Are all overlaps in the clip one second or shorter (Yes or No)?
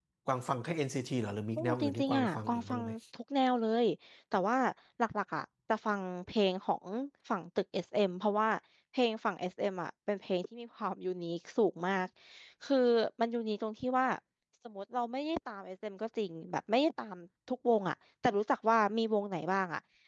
No